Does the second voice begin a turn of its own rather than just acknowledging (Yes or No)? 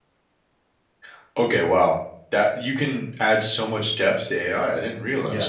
Yes